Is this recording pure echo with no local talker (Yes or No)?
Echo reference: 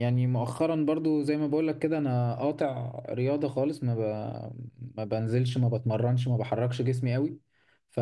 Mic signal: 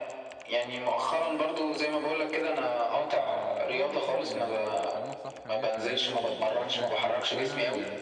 No